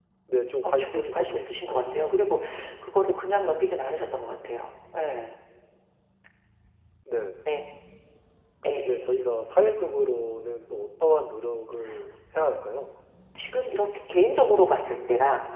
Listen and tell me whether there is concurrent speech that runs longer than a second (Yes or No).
Yes